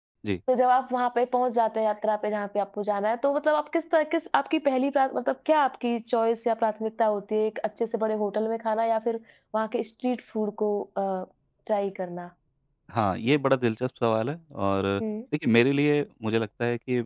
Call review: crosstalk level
none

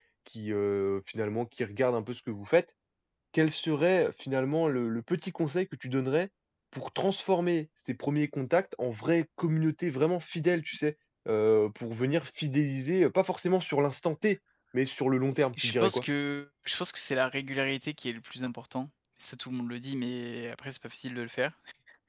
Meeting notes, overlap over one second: none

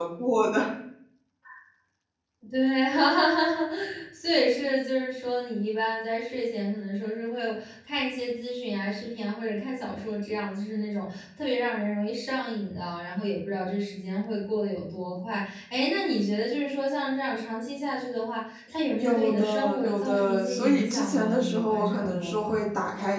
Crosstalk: present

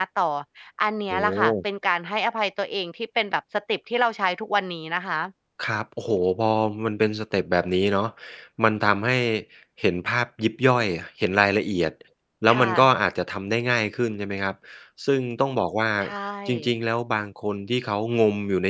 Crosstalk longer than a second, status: none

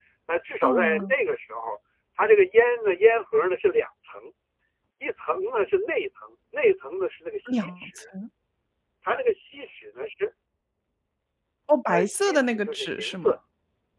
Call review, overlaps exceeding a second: present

